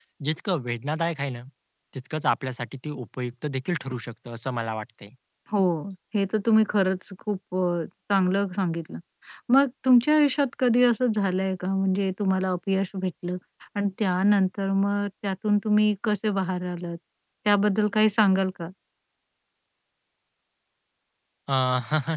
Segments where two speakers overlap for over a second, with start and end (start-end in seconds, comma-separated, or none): none